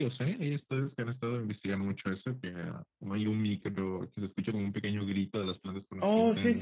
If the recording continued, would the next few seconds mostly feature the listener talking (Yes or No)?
Yes